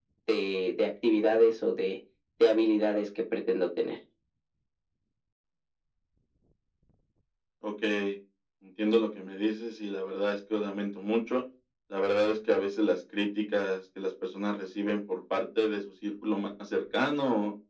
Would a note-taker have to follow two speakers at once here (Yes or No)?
No